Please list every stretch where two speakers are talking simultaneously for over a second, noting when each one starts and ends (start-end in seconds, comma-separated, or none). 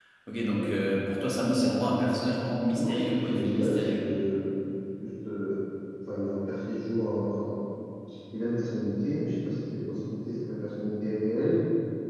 2.8-4.0